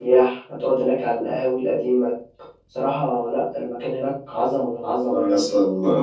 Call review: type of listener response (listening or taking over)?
taking over